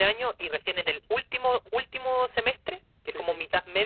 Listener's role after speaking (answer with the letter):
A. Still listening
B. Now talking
A